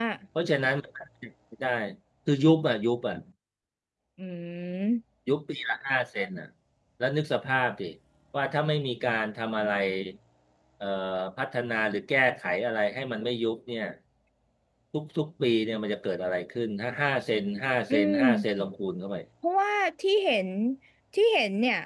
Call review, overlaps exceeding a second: none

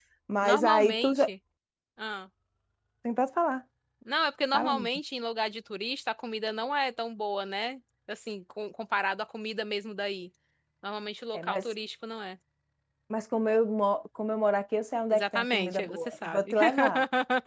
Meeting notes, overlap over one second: present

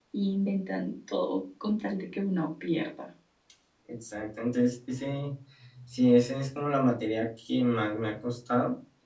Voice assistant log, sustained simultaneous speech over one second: none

